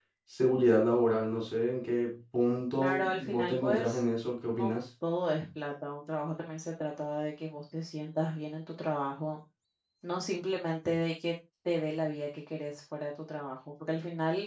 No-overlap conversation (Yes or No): No